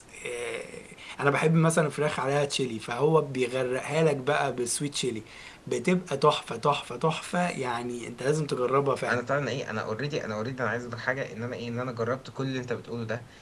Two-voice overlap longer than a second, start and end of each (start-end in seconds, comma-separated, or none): none